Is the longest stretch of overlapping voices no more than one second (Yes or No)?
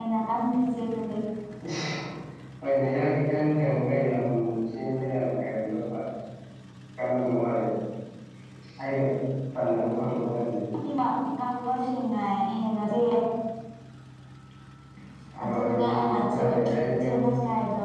No